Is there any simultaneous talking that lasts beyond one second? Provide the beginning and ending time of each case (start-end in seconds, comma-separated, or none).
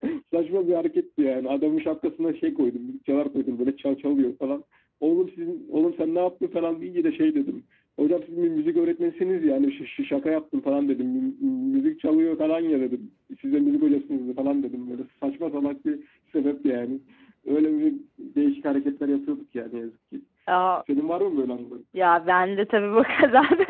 none